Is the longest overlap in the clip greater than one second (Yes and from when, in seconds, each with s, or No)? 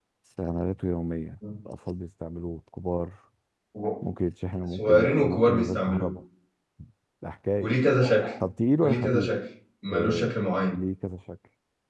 Yes, from 4.8 s